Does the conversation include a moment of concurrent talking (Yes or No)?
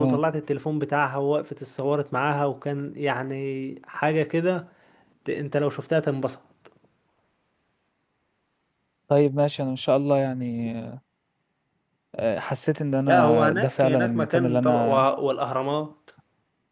Yes